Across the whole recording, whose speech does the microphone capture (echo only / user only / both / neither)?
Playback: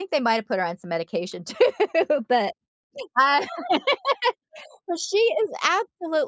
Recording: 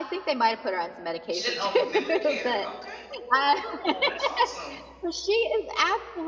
both